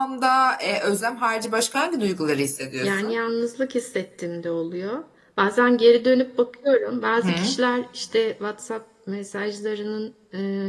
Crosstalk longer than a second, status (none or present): none